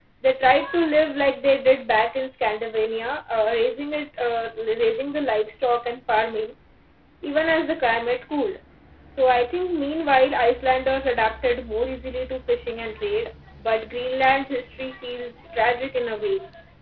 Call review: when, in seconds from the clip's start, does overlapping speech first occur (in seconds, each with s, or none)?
none